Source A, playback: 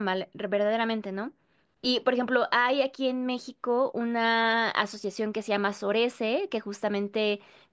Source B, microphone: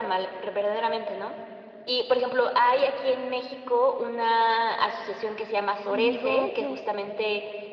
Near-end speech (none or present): present